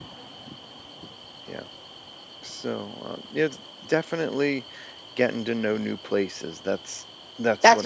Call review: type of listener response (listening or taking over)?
taking over